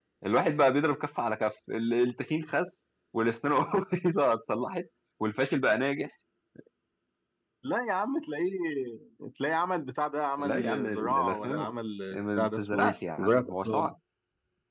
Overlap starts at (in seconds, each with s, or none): 10.4 s